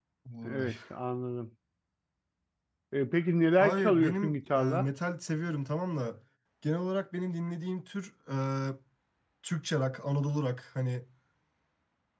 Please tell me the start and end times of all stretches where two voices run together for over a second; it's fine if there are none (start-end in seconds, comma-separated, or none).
3.6-4.9